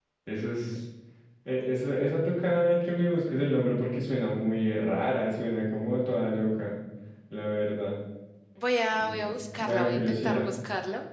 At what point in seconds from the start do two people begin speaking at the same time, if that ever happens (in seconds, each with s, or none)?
9.0 s